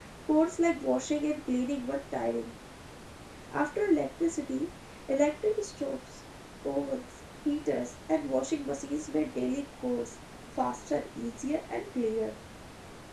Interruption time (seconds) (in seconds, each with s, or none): none